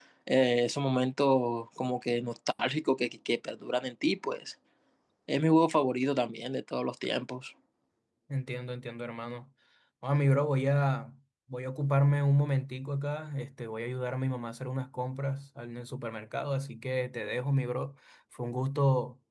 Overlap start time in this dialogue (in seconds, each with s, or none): none